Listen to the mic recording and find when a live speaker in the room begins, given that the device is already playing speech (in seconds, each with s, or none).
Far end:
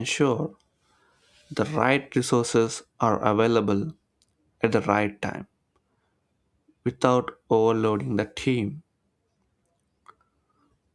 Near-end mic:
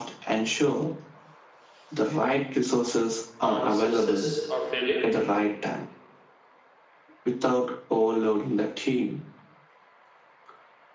3.4 s